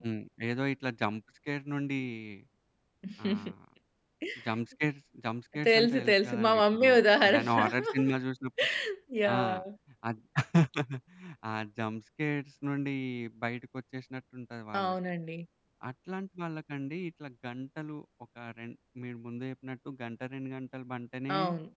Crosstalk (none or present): present